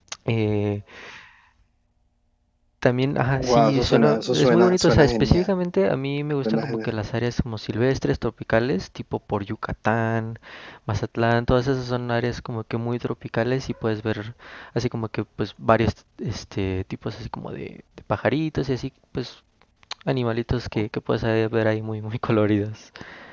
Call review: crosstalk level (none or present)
present